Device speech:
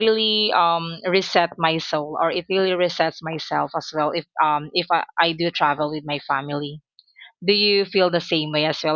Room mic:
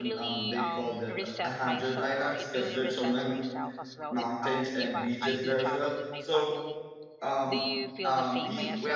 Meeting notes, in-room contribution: present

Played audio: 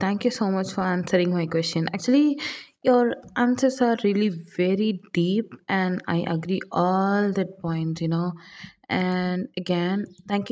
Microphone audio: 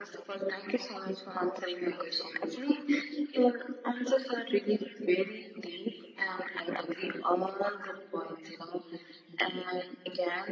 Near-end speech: none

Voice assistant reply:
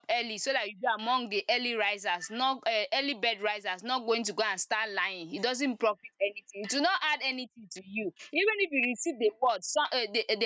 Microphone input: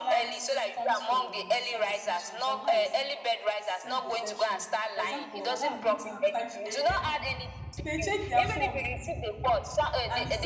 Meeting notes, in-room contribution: present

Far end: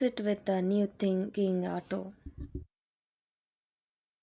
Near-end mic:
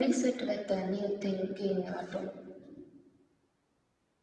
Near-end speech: none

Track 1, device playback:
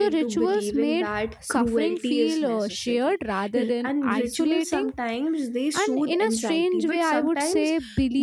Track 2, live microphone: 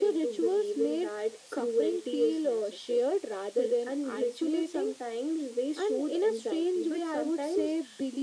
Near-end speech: none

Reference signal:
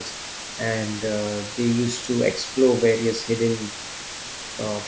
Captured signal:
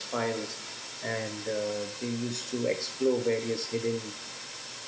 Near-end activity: none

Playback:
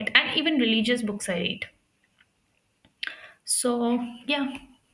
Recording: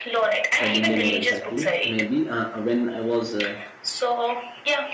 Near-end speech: present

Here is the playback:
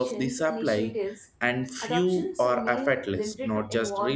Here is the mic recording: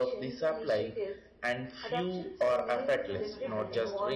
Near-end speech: present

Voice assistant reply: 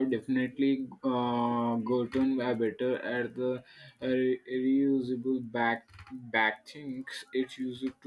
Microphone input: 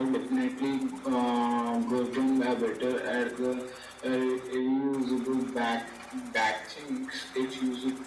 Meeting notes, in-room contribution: none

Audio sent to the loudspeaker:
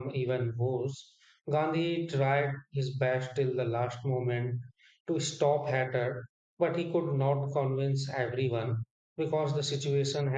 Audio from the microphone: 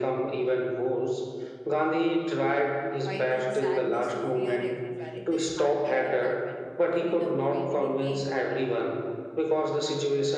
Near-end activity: present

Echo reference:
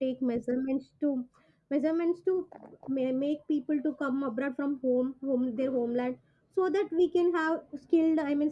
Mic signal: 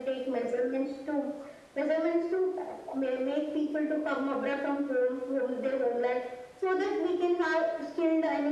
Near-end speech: none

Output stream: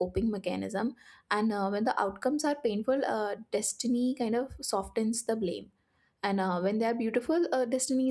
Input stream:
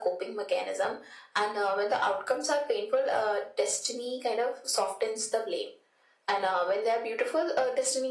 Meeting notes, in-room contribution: none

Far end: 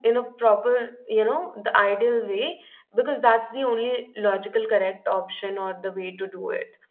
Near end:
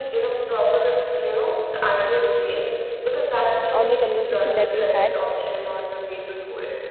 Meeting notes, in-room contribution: present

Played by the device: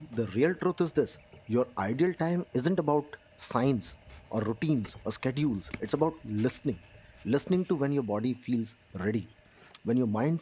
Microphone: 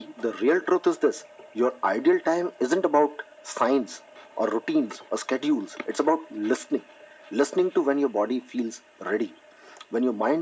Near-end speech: none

